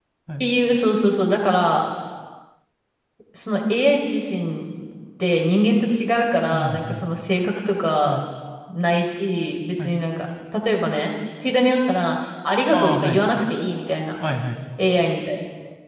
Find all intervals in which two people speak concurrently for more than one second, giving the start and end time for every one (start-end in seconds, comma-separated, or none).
none